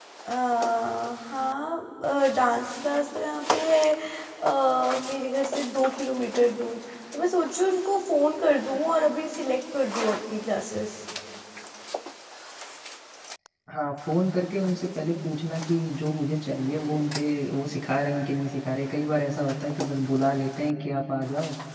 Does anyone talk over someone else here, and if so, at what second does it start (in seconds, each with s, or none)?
none